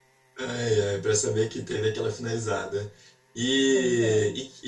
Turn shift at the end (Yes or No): No